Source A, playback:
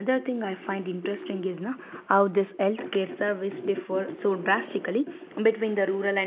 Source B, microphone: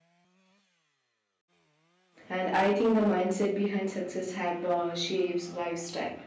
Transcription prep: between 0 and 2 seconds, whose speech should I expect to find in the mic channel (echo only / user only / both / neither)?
neither